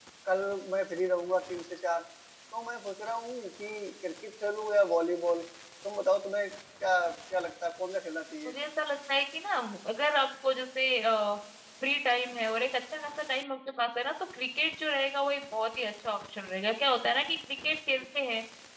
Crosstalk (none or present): none